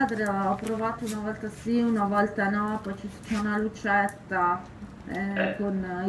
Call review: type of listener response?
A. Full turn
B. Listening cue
B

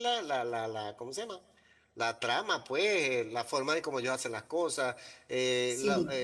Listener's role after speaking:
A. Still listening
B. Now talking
A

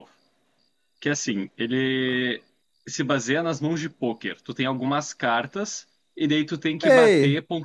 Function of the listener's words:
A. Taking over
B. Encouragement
A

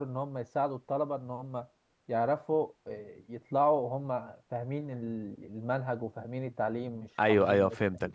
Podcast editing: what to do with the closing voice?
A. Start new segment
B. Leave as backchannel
A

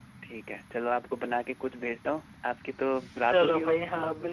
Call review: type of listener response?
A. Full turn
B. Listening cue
A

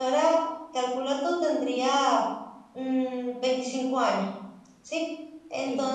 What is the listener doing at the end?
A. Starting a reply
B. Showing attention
B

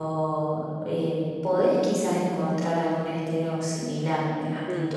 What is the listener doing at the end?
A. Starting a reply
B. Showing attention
B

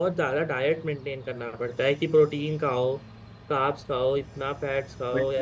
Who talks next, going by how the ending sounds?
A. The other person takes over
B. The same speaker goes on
A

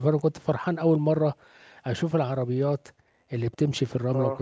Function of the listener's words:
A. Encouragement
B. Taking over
A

